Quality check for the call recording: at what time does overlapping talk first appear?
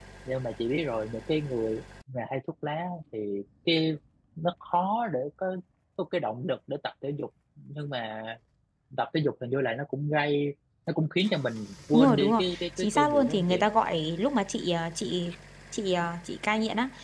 11.9 s

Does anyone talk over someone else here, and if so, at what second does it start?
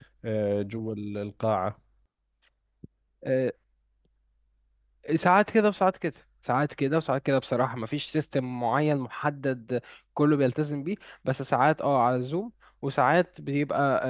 none

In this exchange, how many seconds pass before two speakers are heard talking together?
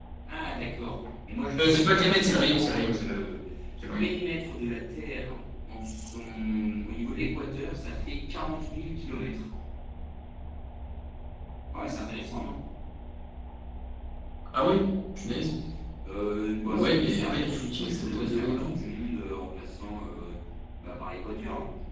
1.6 s

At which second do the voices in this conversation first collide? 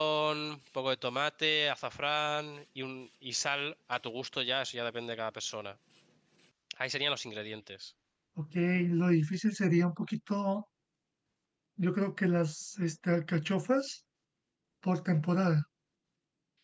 none

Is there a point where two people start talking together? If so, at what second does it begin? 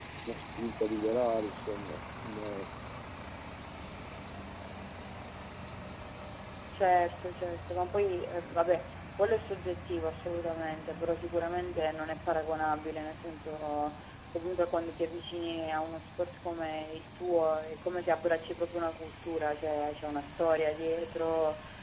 none

